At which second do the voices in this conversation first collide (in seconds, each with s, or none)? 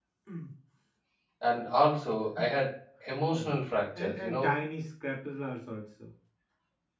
3.3 s